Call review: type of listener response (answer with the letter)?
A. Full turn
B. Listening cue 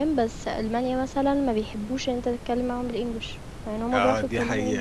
A